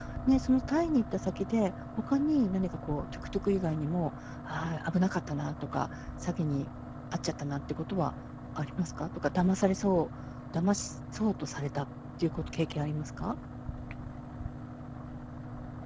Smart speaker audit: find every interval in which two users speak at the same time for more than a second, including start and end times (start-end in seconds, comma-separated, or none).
none